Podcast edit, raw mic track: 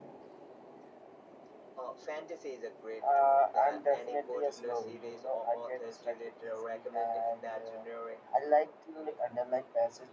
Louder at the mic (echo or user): user